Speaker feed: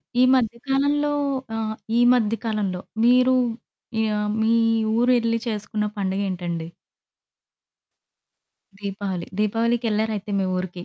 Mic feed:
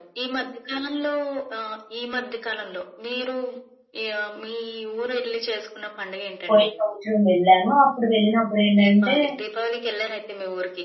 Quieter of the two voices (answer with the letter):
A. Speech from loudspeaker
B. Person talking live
A